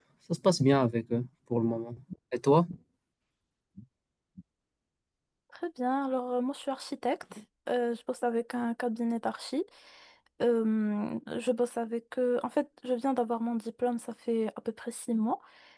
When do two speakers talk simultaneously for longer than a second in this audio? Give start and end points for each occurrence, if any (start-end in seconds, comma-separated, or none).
none